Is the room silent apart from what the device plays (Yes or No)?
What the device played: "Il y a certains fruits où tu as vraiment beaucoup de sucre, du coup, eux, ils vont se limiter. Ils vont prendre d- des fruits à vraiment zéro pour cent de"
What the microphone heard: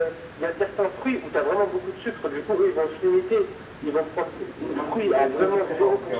No